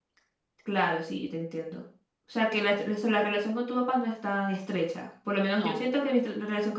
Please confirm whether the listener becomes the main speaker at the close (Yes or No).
No